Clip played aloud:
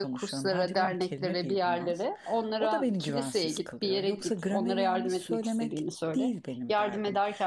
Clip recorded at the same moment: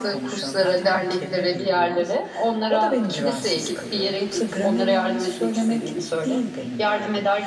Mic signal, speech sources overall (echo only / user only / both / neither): echo only